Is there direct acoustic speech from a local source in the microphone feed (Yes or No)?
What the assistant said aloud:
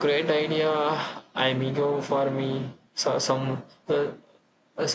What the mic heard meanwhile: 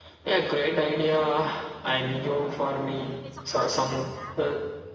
Yes